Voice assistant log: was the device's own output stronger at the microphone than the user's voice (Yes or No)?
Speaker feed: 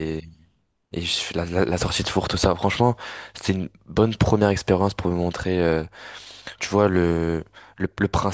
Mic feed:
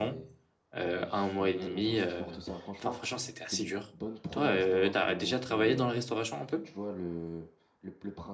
No